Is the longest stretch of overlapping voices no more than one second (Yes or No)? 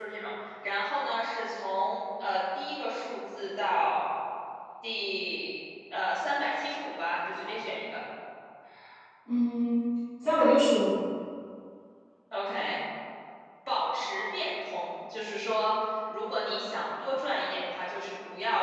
Yes